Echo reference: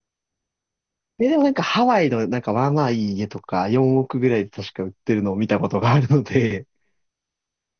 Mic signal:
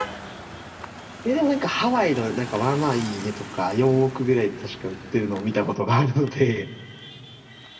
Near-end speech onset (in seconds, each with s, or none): none